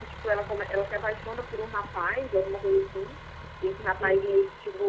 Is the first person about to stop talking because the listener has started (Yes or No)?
No